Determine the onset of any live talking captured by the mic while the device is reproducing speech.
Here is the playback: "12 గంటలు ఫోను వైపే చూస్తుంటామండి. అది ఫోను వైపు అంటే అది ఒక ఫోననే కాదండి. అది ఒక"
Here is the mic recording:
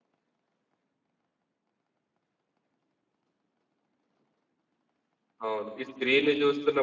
5.5 s

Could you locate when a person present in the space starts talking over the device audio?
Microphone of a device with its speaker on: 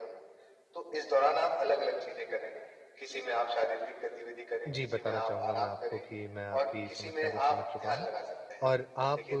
4.7 s

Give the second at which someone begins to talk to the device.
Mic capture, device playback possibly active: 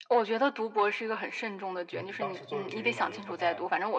1.9 s

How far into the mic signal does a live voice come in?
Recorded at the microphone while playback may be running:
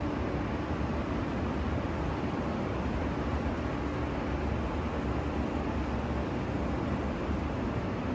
none

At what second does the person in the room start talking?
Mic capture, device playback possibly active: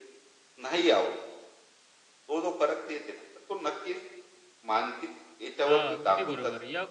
5.7 s

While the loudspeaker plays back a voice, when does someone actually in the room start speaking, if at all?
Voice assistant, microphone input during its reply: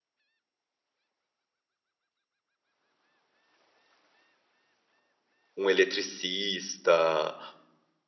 5.6 s

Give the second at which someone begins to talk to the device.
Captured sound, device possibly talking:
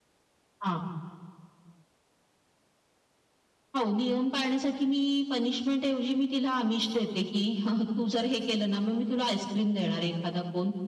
none

